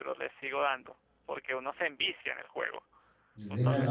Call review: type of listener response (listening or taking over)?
taking over